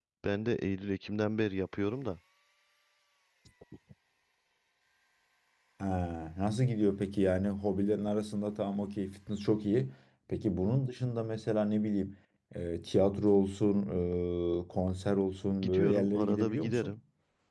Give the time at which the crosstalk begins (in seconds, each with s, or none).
15.6 s